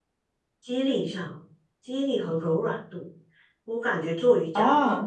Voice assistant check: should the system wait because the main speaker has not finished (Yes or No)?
Yes